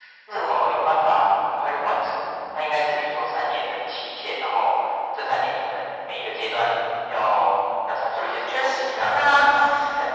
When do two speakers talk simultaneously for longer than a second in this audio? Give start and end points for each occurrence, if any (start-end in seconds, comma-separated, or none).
8.1-9.5